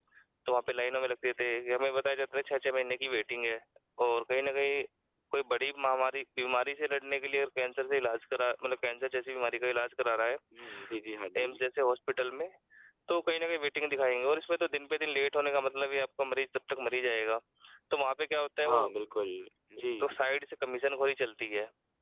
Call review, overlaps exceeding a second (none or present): none